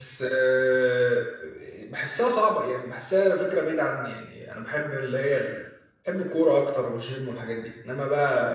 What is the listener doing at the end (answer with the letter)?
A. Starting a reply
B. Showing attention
A